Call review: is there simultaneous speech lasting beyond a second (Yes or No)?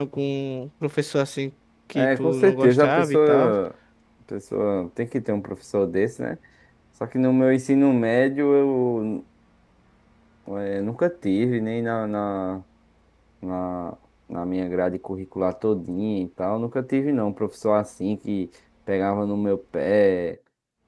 Yes